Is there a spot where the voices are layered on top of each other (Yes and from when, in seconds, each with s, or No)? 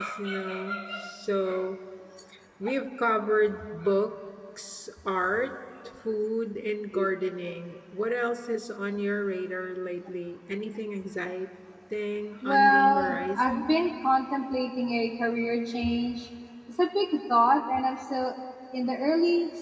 Yes, from 12.4 s